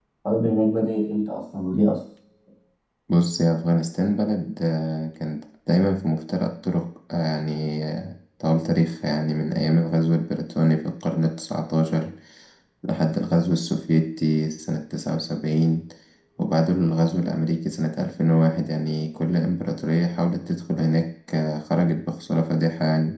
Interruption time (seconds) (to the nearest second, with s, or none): none